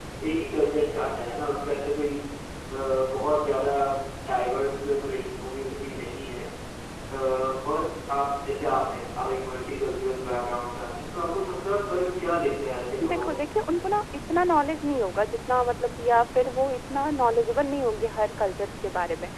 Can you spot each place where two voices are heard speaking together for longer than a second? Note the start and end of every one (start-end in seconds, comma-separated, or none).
none